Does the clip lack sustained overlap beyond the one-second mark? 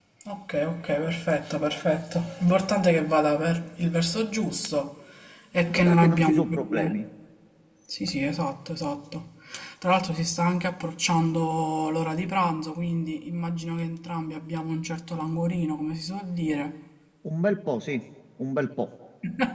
No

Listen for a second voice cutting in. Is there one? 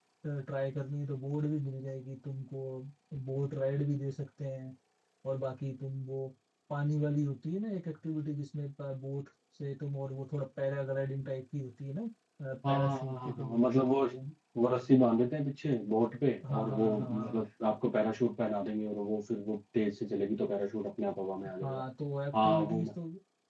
Yes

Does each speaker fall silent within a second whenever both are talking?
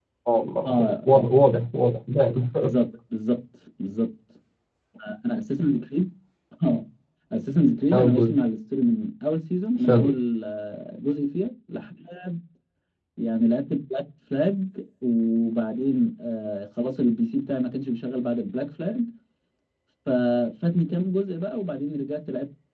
Yes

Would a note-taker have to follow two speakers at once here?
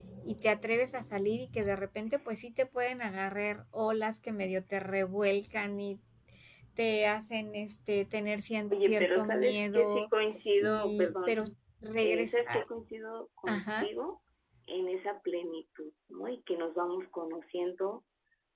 Yes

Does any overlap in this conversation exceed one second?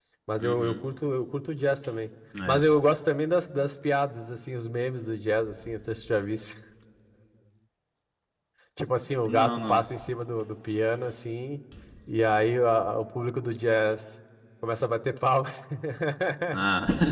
No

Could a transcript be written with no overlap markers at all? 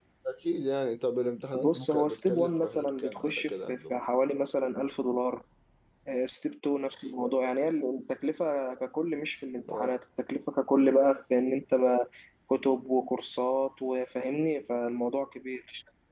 No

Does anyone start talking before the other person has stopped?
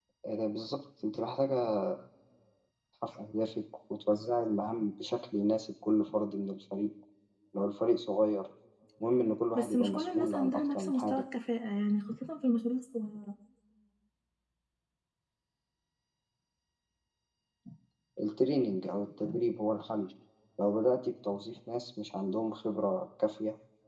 Yes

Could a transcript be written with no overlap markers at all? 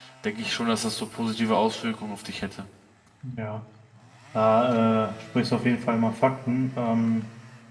Yes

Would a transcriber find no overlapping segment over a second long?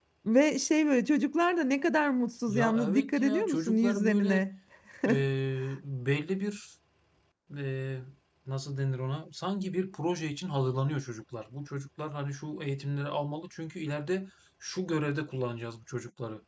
No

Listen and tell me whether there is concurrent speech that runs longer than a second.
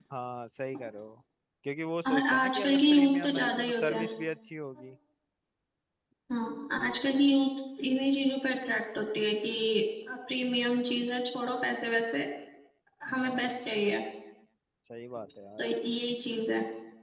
Yes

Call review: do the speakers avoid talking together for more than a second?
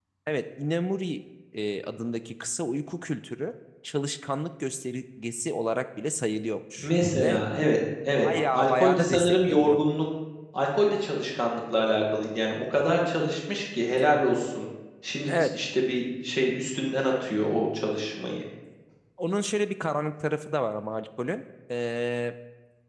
No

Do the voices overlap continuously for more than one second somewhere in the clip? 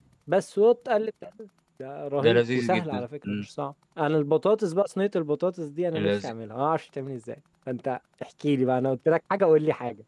Yes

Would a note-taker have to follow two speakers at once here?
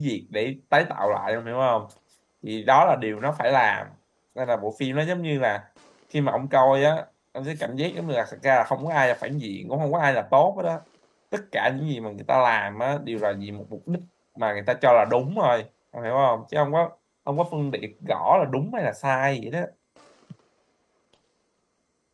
No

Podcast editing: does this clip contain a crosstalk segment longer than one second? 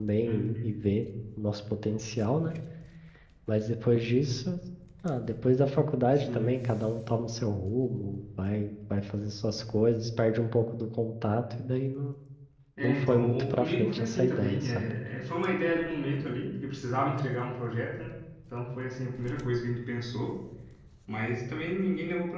Yes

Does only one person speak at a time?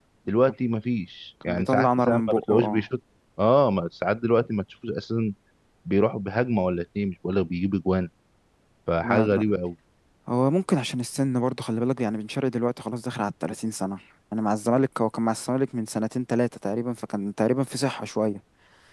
No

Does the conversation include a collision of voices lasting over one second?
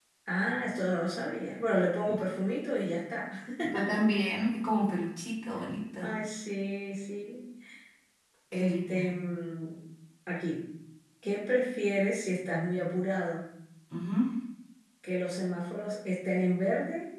No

